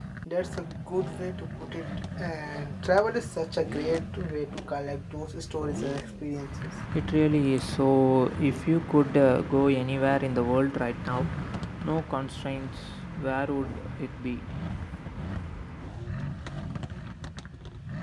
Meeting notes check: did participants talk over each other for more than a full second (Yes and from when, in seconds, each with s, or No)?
No